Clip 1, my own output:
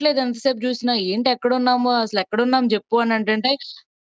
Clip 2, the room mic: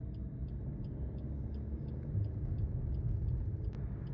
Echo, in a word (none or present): none